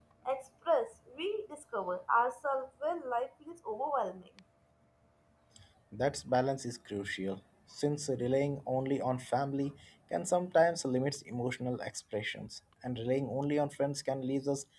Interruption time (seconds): none

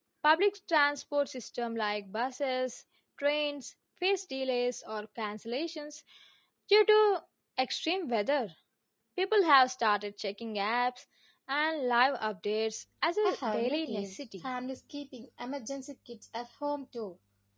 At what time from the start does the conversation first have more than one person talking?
13.2 s

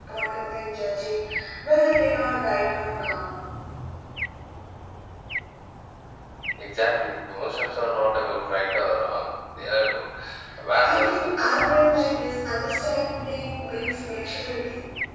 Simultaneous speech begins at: 10.8 s

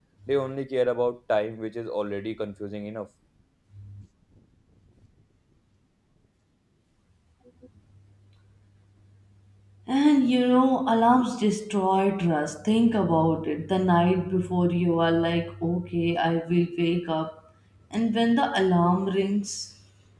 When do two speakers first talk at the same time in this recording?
none

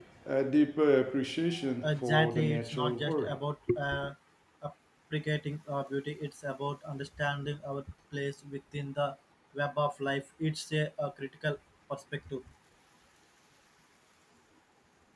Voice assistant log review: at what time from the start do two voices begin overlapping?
1.8 s

